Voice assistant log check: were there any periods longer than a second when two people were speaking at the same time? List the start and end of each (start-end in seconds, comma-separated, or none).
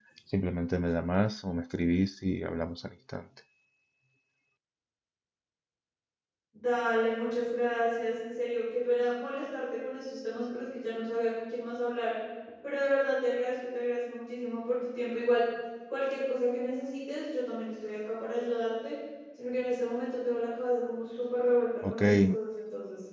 none